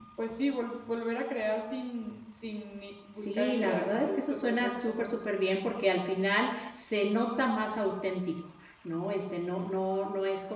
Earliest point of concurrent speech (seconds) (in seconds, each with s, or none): 3.2 s